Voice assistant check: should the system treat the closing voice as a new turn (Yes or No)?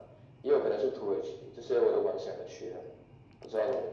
Yes